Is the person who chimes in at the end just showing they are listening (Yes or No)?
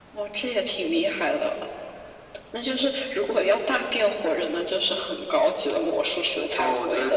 No